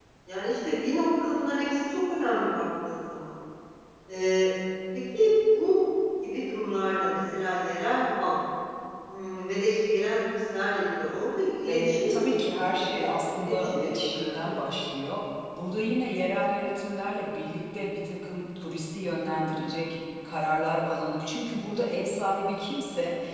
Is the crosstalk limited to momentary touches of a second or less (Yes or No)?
No